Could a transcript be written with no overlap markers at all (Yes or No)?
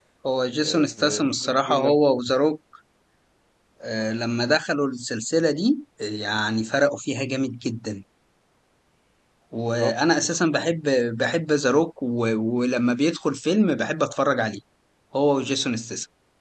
No